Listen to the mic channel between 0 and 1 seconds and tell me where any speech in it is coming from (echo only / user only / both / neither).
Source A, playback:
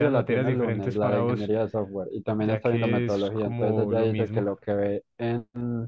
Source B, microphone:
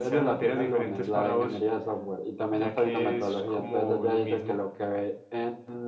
echo only